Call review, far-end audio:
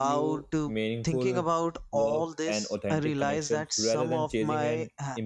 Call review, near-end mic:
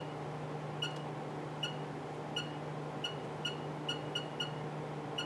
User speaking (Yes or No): No